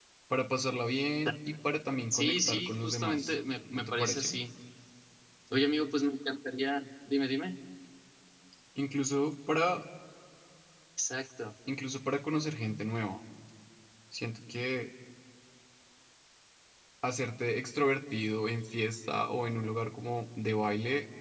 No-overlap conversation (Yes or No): No